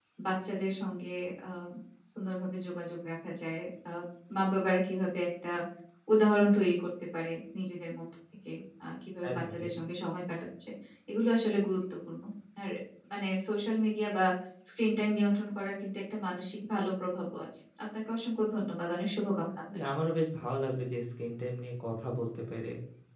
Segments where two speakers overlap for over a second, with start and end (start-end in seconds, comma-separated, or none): none